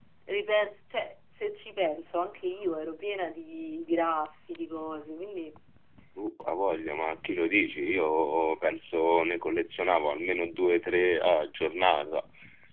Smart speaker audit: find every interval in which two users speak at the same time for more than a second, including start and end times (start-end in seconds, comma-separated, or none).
none